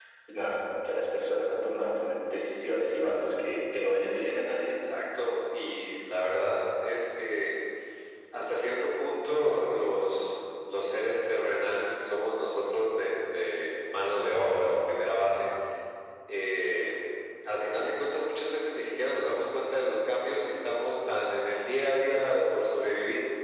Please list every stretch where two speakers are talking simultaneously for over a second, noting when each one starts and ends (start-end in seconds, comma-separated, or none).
none